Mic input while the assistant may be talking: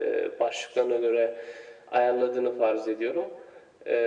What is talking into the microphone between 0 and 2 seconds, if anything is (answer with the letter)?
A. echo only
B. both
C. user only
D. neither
A